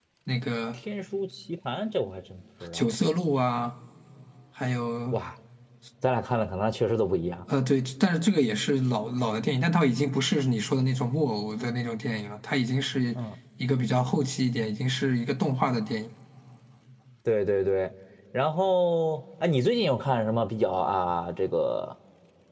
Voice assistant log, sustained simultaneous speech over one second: none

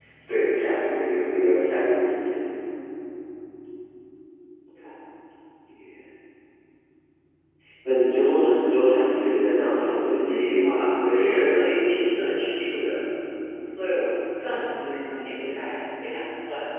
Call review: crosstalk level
present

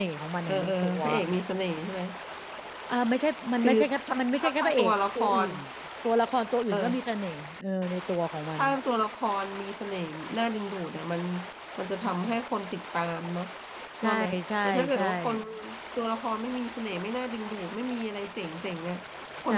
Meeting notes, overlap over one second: present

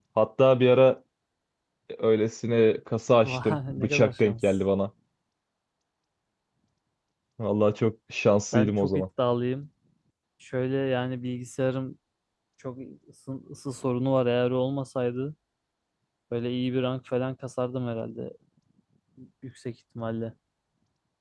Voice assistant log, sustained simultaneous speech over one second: present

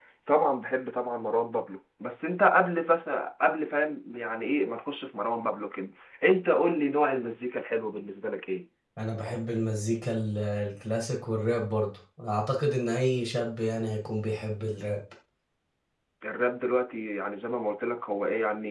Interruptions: none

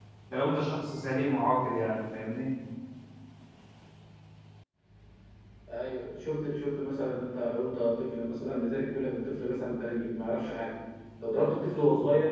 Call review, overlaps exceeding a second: none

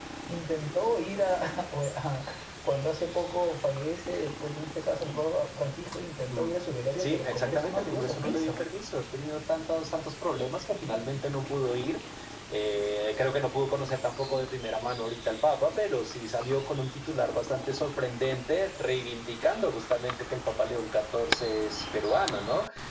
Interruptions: present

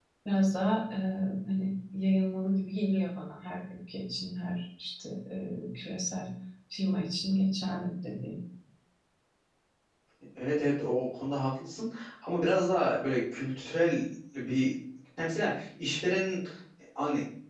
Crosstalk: none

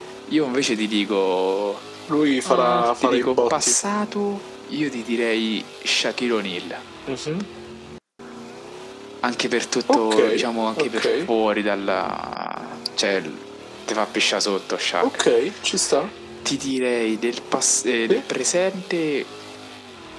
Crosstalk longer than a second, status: present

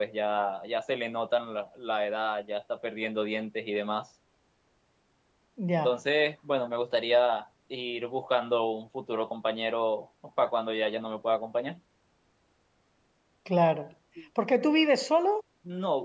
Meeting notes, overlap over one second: none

